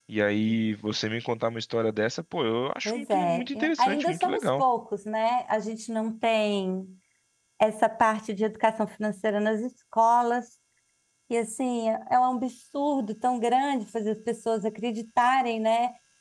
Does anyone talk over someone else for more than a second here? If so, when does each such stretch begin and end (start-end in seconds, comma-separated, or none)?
2.8-4.6